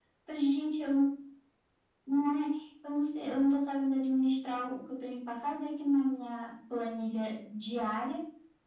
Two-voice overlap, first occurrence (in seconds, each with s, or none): none